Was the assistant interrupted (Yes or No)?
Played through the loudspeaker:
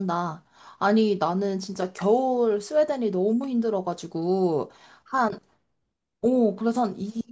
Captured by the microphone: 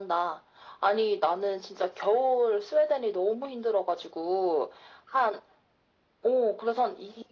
No